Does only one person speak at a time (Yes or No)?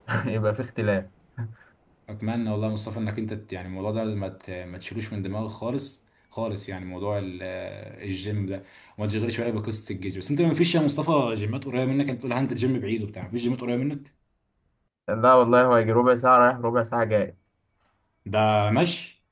Yes